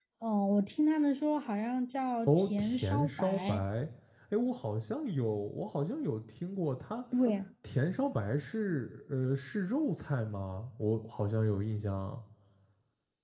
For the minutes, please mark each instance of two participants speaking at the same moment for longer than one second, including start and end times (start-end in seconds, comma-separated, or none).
2.3-3.6